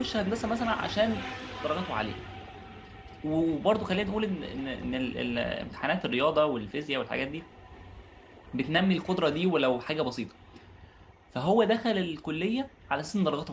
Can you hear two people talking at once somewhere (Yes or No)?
No